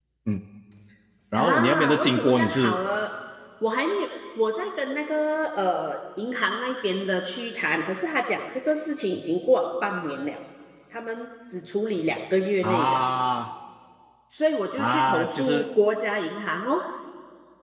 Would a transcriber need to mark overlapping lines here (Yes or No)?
Yes